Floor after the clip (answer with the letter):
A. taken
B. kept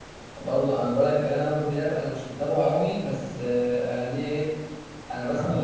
B